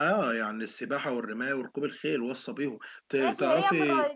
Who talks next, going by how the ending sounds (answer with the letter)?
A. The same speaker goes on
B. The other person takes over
B